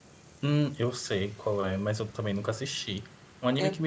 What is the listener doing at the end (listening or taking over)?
listening